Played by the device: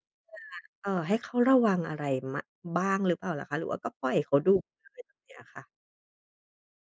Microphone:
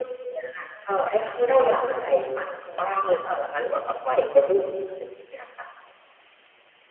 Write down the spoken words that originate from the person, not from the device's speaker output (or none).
none